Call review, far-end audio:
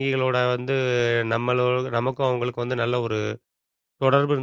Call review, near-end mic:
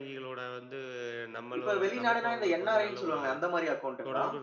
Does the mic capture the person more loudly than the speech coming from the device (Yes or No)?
Yes